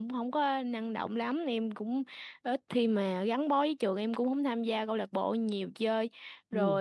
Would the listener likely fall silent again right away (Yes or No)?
Yes